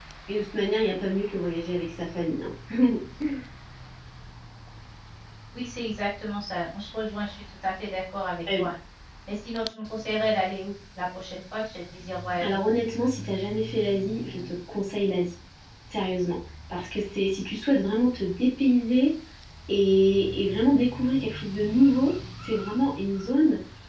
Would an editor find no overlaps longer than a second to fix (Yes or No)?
Yes